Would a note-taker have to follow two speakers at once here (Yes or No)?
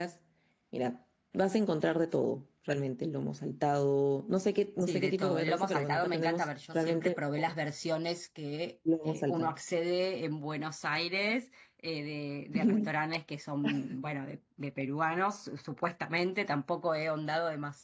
Yes